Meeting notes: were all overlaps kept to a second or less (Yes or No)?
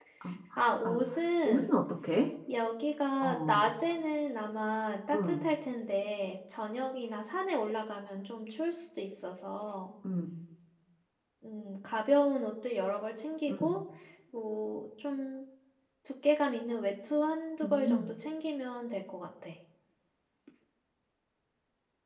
Yes